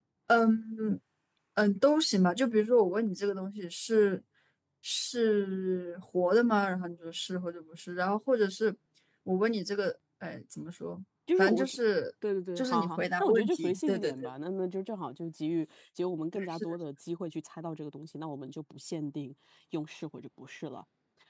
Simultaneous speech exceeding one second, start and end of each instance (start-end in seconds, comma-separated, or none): 12.6-14.1